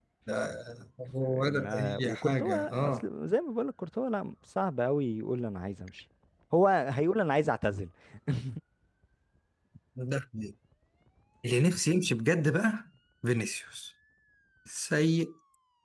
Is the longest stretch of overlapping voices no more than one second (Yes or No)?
No